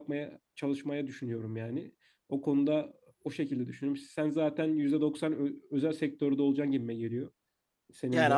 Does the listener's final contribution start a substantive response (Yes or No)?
Yes